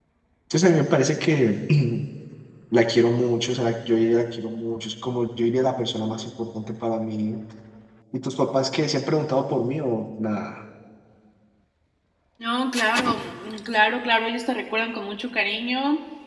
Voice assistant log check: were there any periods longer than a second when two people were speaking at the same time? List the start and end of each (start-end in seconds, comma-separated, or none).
none